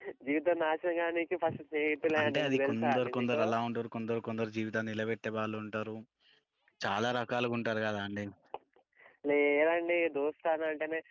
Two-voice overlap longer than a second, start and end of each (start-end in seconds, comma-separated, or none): 2.2-3.4